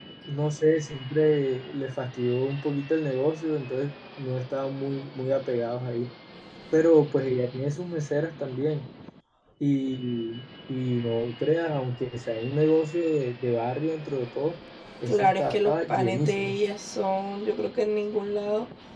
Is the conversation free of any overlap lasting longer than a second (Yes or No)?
No